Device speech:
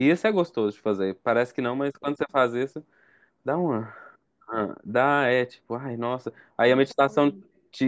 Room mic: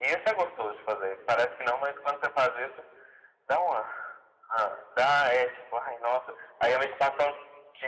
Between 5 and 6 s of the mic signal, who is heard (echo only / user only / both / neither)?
echo only